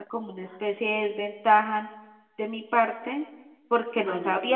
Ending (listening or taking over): listening